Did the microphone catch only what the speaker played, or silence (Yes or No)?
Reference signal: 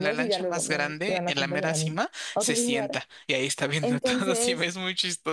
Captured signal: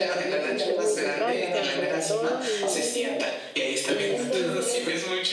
No